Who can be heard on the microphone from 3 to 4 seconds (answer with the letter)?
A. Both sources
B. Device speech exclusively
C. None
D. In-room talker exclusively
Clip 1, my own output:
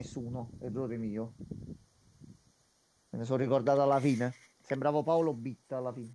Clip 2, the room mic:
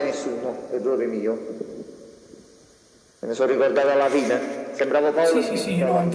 B